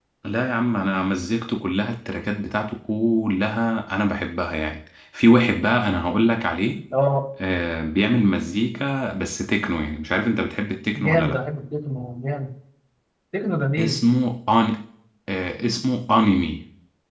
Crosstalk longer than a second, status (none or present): none